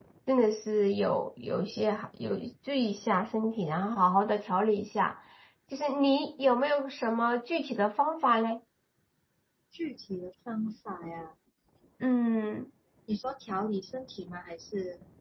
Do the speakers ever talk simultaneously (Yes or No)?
No